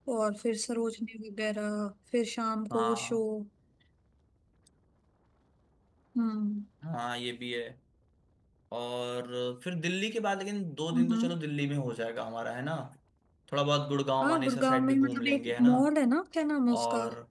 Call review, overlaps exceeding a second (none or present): present